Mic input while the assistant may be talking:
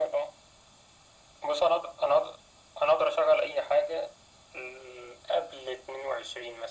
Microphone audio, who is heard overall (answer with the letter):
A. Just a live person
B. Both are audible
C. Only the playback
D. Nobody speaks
C